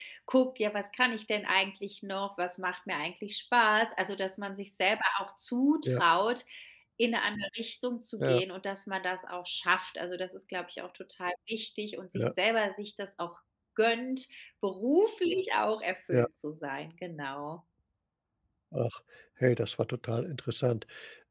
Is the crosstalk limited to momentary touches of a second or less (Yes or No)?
Yes